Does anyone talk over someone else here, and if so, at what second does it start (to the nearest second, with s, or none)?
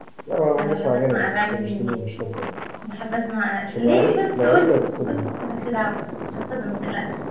1 s